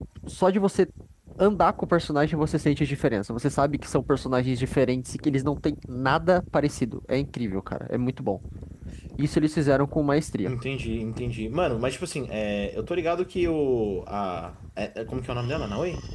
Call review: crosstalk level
none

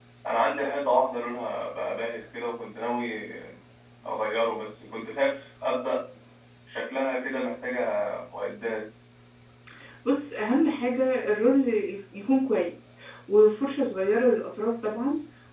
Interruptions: none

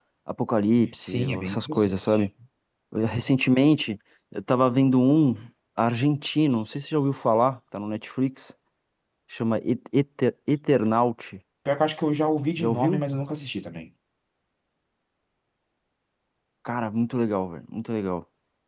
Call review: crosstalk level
present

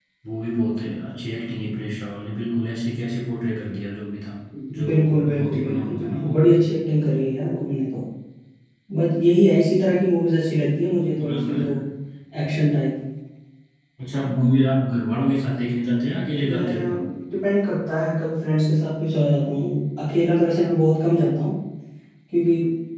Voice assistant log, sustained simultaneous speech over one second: present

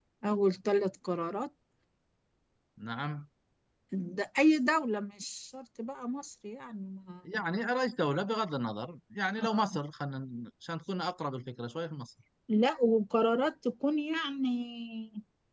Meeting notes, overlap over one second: none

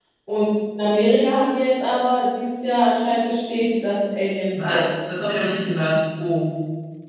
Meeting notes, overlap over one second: none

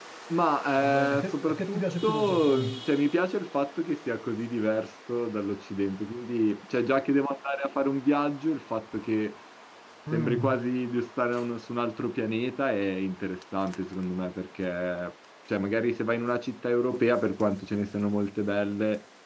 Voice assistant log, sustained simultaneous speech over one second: present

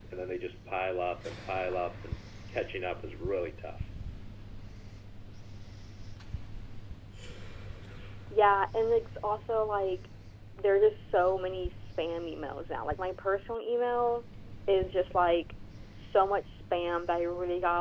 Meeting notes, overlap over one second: none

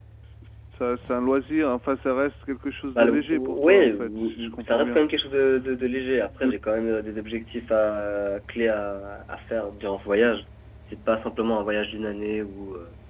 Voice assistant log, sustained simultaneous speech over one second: present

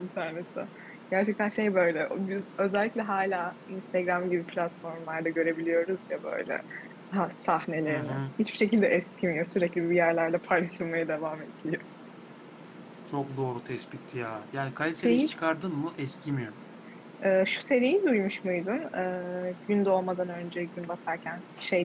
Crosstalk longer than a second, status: none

